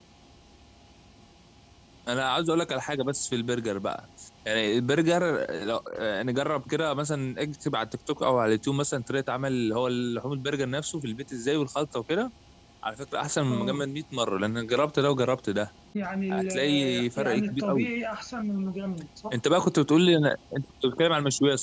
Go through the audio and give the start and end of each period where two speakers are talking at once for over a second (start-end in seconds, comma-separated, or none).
16.3-17.9